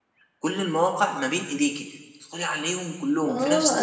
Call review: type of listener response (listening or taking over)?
taking over